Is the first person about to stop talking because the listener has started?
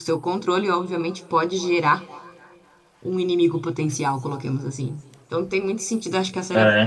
No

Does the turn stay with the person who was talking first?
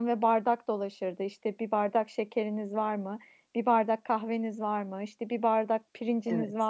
Yes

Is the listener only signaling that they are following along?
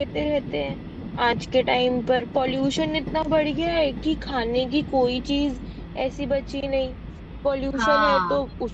Yes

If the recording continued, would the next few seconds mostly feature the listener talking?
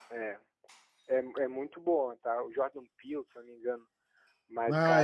Yes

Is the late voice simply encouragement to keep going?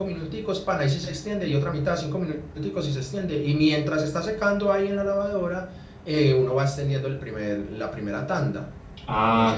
No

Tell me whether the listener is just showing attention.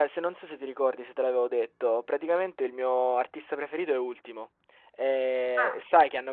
Yes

